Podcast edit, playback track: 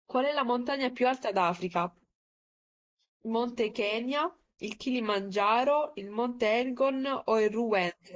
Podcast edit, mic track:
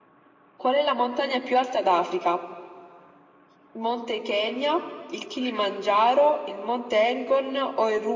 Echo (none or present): present